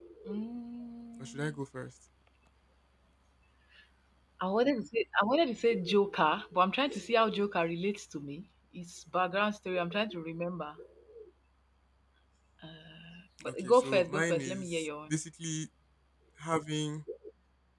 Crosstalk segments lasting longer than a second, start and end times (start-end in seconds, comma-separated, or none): 13.5-15.1